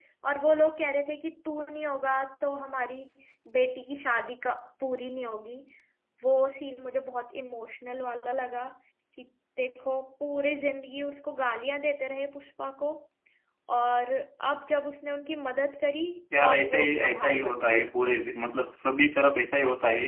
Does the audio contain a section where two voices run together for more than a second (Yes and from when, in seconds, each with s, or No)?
Yes, from 16.3 s